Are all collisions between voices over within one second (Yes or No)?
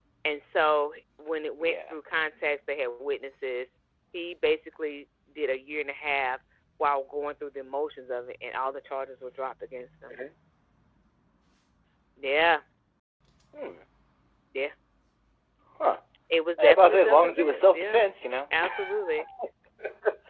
No